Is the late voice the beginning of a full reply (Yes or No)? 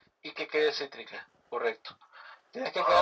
No